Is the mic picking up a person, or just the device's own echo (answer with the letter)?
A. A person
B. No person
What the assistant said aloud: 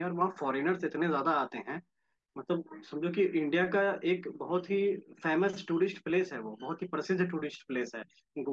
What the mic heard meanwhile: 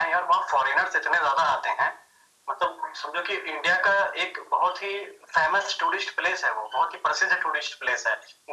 B